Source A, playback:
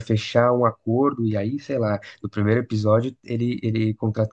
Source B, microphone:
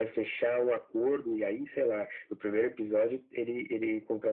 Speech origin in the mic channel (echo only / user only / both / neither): echo only